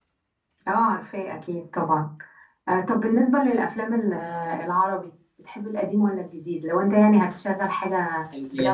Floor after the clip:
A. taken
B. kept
A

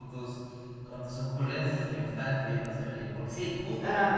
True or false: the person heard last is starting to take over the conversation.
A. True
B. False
A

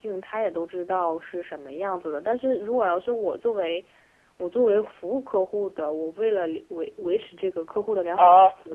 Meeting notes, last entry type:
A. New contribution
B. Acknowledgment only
A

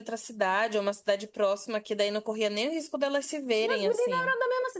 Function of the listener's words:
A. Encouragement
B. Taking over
B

